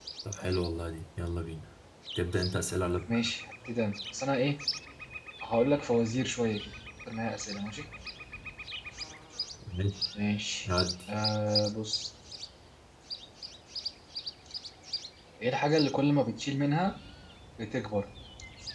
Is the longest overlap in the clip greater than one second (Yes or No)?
No